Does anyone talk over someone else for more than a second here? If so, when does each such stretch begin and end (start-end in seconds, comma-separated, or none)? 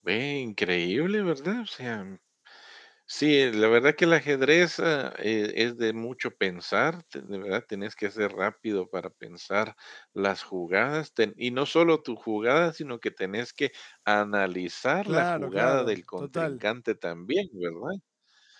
15.0-16.5